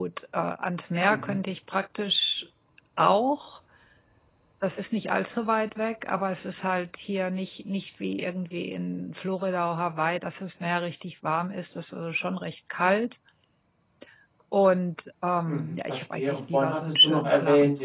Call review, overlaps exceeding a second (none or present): present